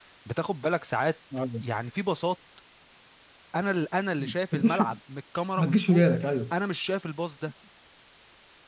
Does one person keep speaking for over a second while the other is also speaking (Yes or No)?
No